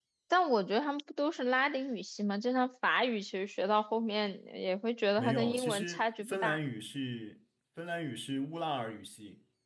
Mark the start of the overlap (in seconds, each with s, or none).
5.2 s